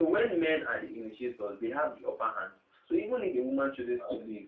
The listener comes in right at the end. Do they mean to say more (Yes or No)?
No